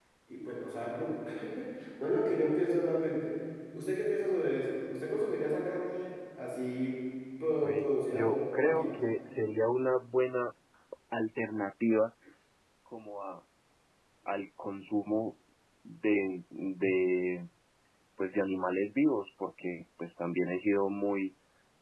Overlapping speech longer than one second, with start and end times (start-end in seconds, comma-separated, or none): 7.6-9.0